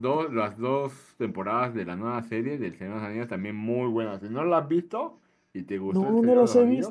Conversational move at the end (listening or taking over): taking over